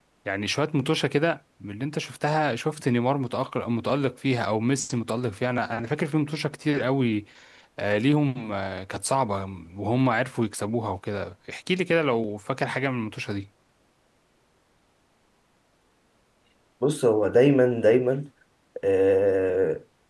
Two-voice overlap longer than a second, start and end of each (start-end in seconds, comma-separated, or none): none